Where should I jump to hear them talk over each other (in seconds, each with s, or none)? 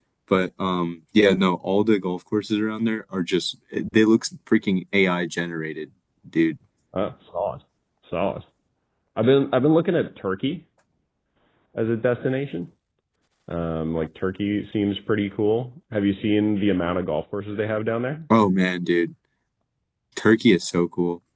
none